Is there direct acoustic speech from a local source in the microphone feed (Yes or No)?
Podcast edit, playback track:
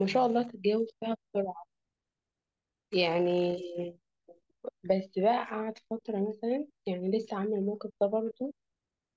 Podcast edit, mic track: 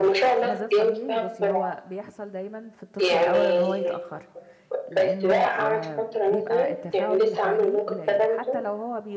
Yes